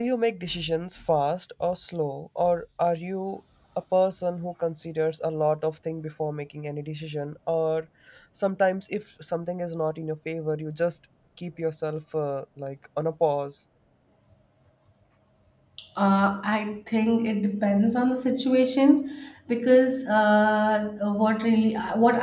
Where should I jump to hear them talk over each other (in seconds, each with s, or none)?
none